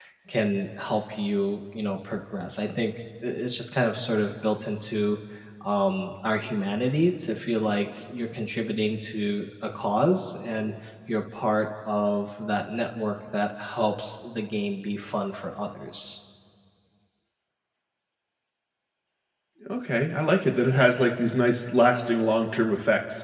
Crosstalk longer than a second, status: none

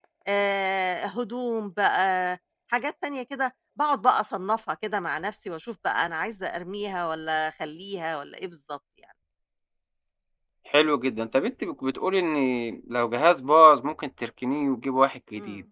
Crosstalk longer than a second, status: none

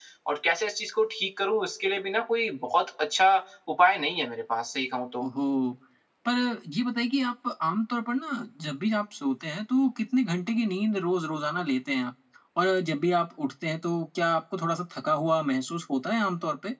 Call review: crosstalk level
none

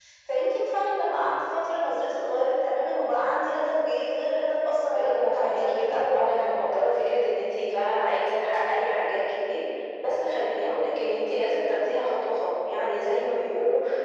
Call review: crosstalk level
present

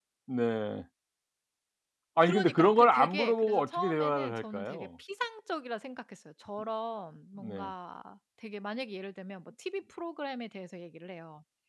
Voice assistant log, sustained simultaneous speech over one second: present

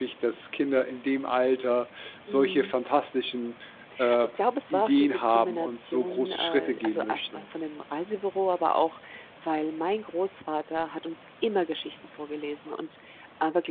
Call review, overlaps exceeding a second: present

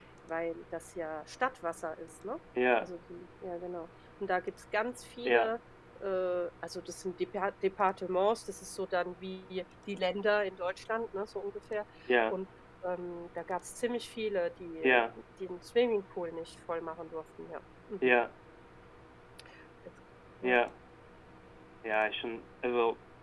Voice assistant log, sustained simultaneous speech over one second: none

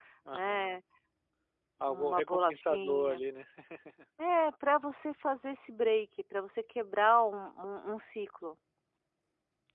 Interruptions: present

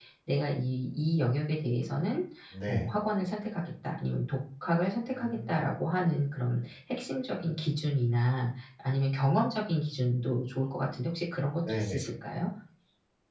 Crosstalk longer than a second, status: none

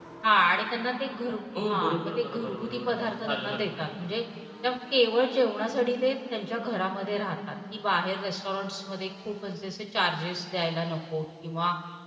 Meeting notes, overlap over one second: present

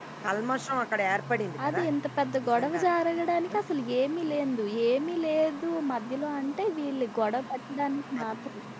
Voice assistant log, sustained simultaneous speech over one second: none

